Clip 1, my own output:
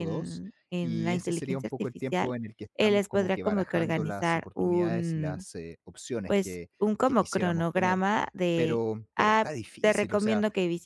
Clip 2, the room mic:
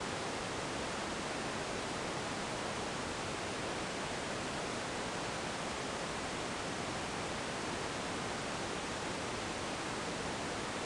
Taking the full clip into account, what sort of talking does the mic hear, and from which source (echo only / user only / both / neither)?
neither